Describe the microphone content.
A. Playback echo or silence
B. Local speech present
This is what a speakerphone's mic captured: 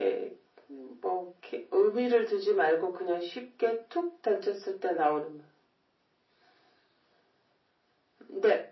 A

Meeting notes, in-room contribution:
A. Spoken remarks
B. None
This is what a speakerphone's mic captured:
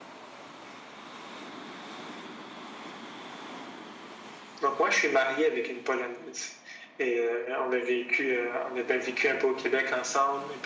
B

